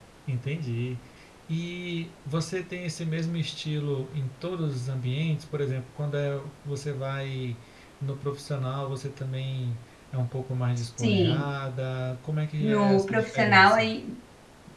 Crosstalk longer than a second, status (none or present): present